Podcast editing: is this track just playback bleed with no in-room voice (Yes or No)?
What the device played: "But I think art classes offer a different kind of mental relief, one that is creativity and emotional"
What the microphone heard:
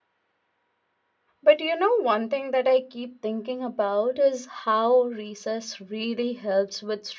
No